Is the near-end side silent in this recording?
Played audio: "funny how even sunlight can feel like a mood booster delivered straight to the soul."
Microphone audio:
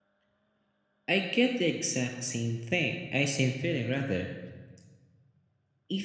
No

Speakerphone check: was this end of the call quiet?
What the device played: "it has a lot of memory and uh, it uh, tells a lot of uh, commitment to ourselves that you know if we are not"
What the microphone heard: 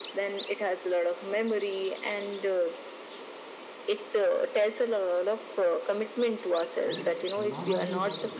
No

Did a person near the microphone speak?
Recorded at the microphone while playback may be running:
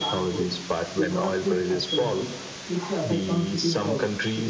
Yes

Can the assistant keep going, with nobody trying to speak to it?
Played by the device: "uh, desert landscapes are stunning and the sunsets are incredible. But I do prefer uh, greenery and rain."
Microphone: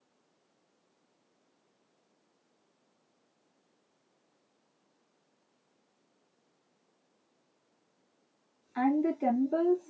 No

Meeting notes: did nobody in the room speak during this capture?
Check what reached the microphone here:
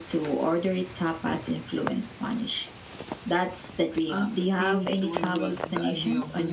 No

